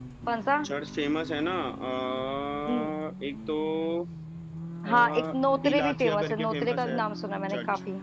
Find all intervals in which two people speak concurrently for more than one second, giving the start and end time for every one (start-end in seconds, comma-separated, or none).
4.9-7.0